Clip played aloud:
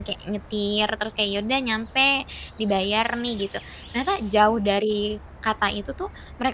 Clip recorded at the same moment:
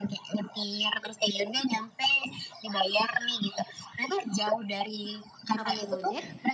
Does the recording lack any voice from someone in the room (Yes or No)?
No